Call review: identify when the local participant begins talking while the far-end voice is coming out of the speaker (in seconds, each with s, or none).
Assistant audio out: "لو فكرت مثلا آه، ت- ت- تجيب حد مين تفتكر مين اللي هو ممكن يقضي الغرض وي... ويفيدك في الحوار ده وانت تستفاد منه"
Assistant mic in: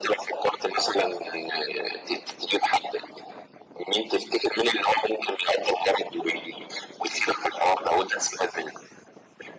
none